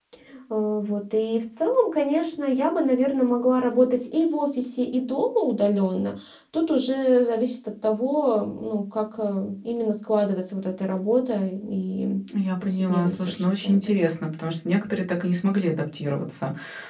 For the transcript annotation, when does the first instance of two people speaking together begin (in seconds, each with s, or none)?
12.6 s